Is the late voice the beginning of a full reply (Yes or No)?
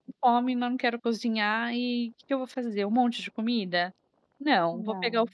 No